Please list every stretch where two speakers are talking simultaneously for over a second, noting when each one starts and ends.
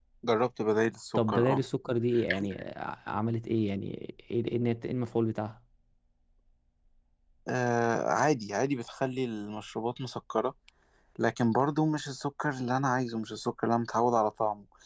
none

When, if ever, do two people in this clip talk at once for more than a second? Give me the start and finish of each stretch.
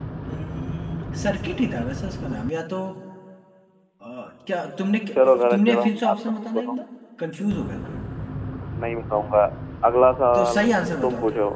5.5-6.7

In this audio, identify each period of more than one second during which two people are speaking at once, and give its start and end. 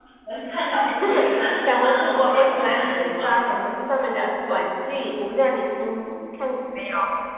1.7-3.4

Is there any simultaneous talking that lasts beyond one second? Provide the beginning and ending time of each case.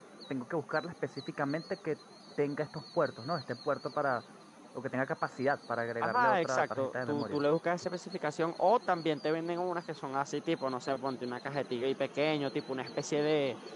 6.0-7.4

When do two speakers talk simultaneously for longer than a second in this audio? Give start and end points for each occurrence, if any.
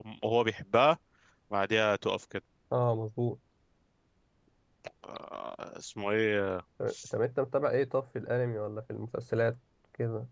none

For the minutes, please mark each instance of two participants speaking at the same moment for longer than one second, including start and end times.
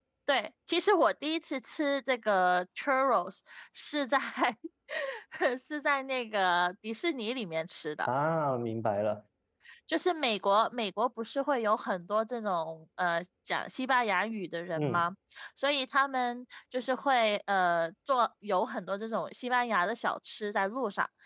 none

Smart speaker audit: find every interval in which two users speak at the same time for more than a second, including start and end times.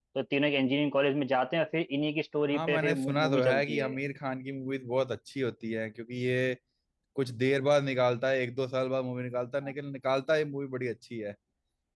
2.5-4.0

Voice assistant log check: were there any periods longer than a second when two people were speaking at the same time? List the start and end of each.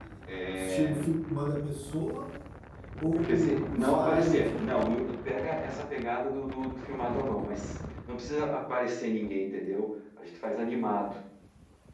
3.3-4.6

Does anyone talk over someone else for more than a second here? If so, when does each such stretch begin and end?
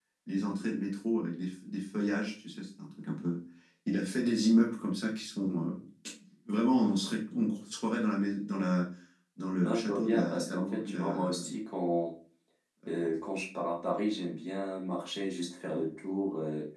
9.6-11.4

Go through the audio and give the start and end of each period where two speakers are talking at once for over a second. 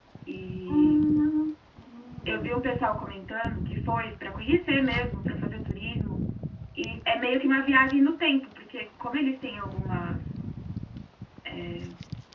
none

